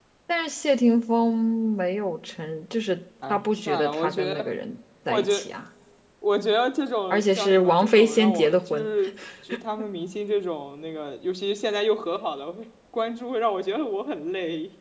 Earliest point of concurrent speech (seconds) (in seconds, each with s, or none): 3.3 s